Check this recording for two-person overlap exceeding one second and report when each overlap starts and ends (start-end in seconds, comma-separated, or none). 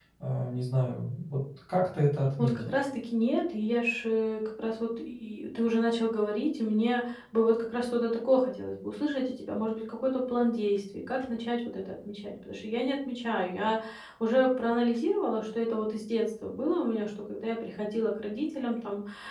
none